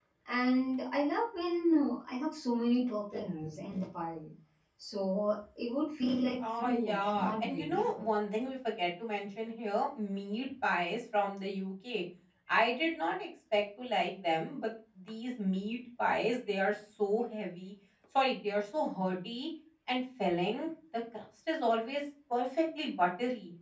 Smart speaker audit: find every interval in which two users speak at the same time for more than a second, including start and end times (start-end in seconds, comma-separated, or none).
6.4-8.1